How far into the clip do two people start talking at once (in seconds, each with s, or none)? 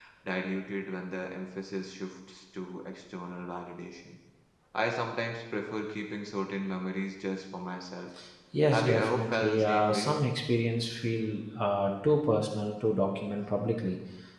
8.7 s